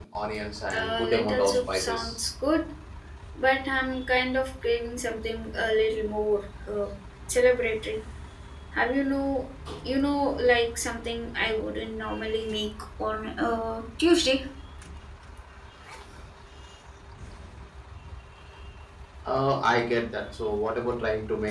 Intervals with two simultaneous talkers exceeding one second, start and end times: 0.7-2.2

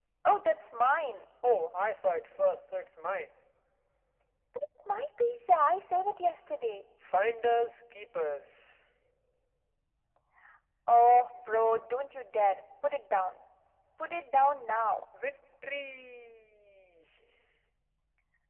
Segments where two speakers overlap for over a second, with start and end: none

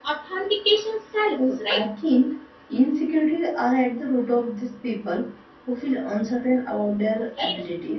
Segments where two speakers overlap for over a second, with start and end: none

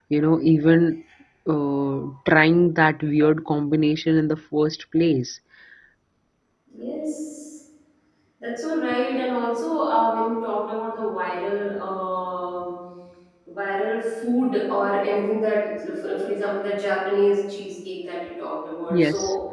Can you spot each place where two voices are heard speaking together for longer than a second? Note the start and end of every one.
none

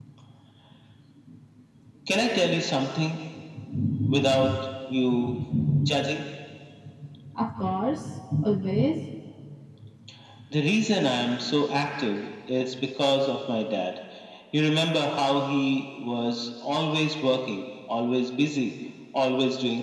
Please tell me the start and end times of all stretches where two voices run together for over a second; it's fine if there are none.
none

